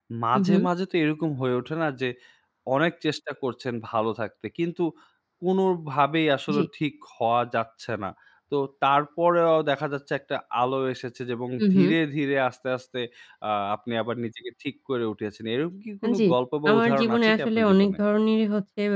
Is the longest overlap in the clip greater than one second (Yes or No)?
Yes